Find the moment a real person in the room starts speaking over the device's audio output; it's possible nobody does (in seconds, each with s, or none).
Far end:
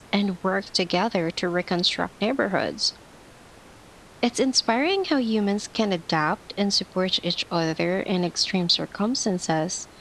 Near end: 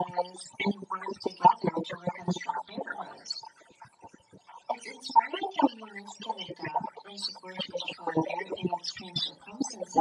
none